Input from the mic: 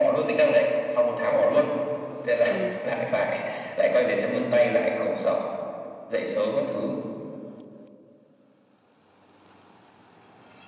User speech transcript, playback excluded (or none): ừ